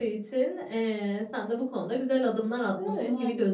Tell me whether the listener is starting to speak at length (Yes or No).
No